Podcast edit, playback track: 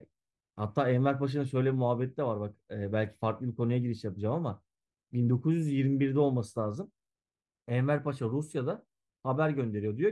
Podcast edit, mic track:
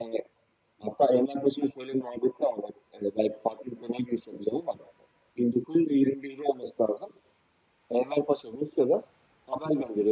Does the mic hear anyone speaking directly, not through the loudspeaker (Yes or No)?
No